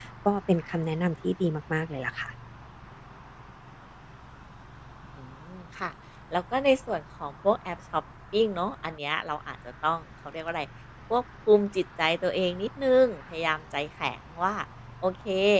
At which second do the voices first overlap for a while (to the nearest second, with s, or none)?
none